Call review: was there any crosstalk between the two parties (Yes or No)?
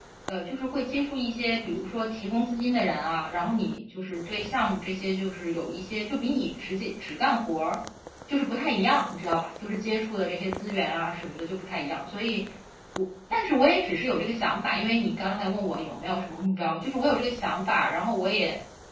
No